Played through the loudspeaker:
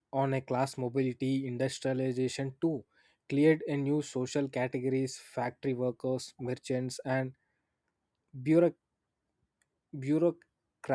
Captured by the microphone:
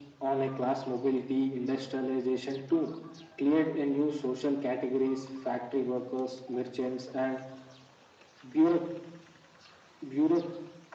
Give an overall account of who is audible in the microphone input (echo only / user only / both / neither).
echo only